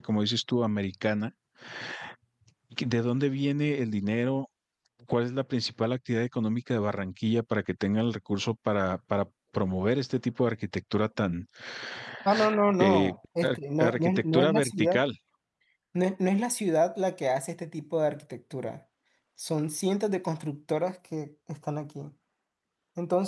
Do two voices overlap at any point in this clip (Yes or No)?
Yes